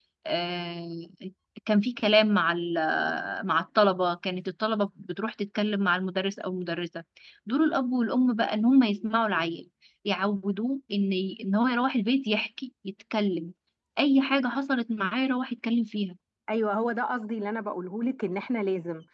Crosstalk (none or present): none